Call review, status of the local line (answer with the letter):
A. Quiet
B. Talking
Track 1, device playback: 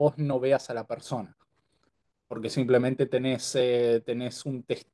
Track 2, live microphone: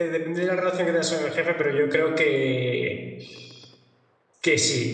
B